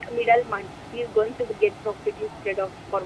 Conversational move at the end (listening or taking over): taking over